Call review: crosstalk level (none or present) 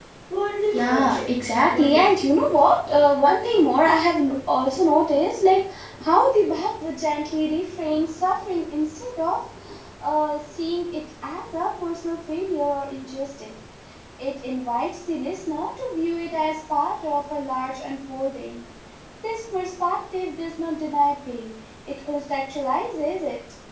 present